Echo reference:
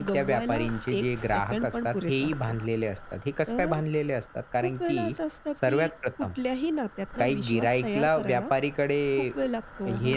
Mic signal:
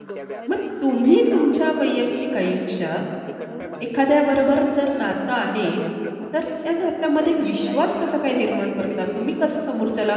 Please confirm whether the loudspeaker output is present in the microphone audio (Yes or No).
Yes